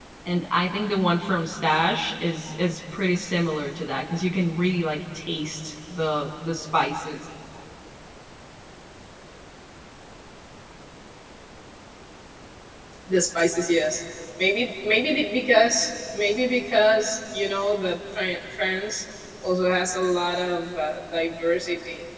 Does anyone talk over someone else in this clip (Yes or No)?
No